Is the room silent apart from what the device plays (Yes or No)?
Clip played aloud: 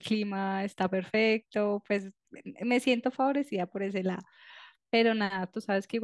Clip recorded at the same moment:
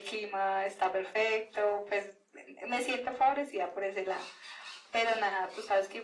Yes